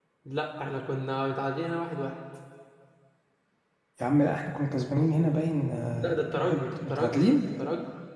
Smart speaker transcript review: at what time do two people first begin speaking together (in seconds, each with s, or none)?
6.0 s